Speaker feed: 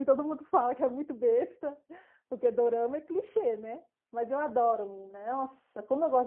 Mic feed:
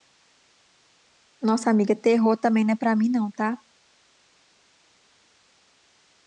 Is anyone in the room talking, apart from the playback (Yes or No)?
Yes